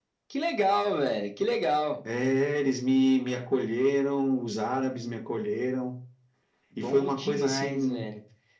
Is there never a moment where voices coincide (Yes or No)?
No